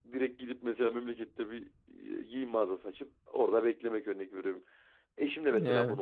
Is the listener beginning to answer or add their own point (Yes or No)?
No